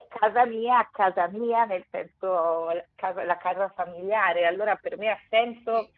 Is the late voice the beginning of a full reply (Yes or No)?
No